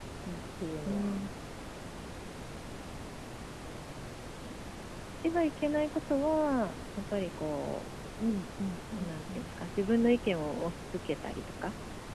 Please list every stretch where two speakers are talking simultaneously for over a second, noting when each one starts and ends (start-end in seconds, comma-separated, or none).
none